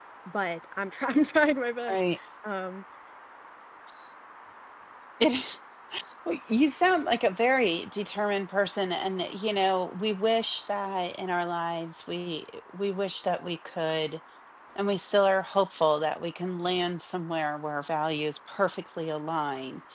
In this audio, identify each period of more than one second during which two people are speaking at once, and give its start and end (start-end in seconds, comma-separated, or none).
none